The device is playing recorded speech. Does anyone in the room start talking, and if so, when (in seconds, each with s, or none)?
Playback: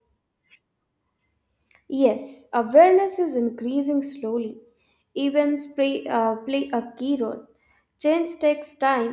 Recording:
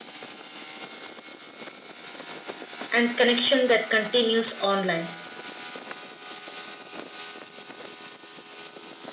2.9 s